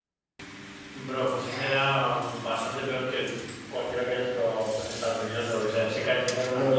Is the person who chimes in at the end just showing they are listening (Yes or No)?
No